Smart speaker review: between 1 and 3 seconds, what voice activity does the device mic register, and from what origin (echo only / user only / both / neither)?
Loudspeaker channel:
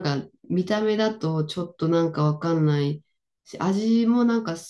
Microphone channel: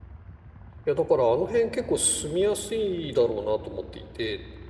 user only